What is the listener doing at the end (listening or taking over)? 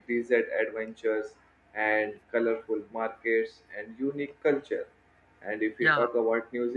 listening